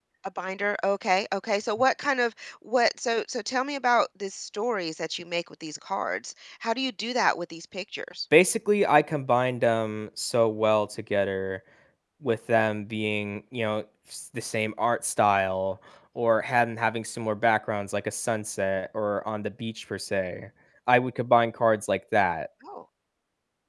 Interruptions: none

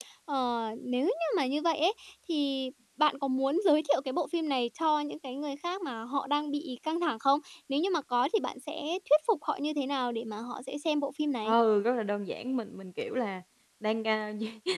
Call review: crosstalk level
none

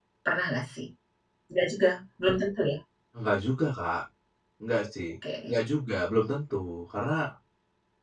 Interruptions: none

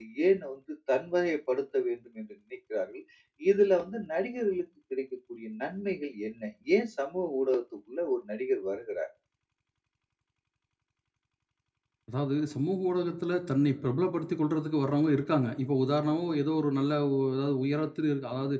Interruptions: none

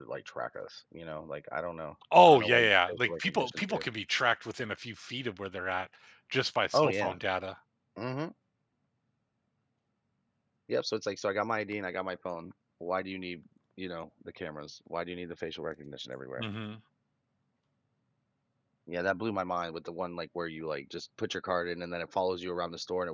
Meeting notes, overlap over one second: present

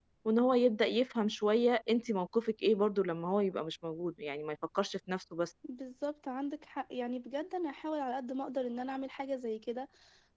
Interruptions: none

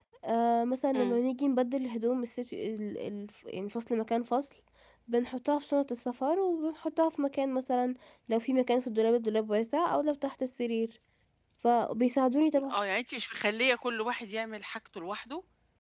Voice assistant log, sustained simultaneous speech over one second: none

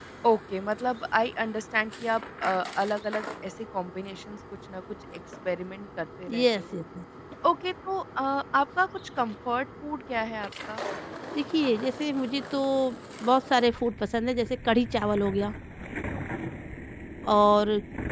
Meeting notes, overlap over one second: none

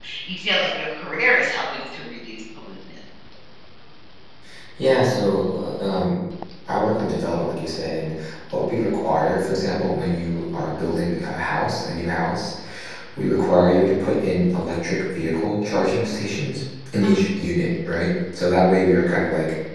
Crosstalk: none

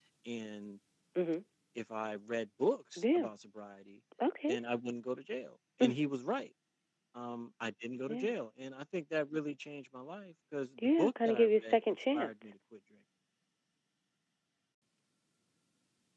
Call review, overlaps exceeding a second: present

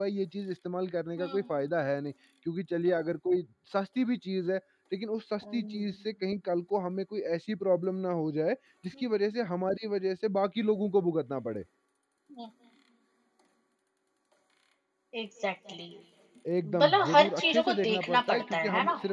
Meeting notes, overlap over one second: present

